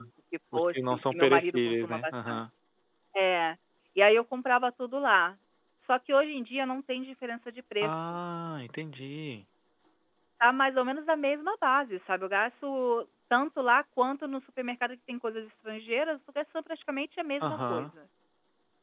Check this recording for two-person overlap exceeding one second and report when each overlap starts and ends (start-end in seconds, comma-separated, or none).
0.5-2.4